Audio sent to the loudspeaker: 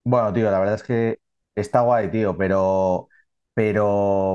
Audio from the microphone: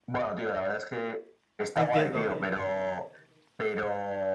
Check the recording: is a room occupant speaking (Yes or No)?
Yes